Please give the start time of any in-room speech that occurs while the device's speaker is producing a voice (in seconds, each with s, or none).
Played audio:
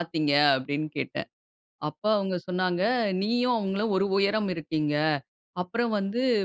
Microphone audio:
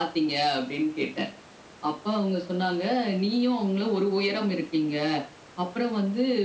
none